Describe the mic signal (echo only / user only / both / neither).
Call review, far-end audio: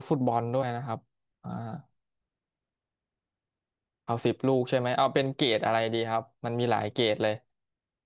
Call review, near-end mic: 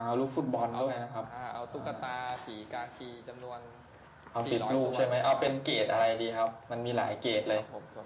both